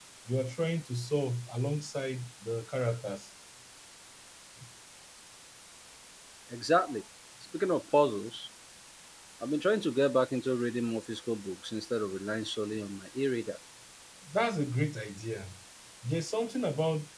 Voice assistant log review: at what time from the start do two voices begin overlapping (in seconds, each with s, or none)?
none